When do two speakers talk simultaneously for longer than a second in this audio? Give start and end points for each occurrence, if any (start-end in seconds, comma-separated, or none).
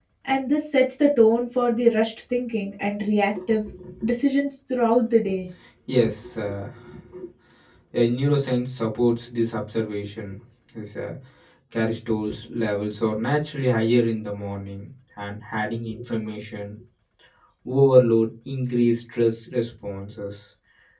none